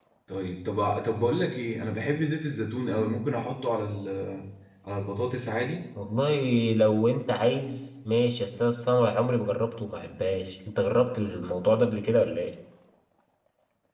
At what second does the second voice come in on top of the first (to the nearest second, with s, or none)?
none